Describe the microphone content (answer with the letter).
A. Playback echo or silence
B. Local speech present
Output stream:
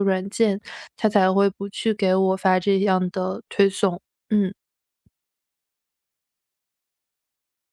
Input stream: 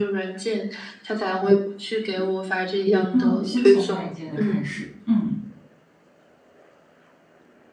B